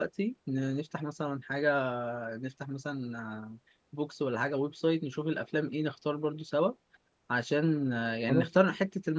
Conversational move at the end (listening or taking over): listening